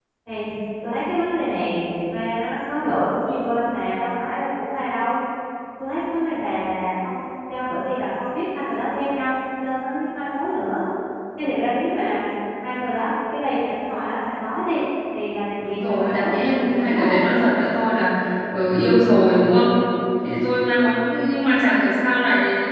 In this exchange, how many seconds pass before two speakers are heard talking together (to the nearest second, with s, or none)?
16 s